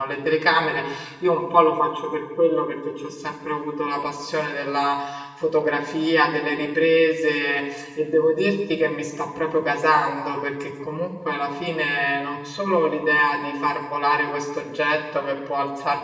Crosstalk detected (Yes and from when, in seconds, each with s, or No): No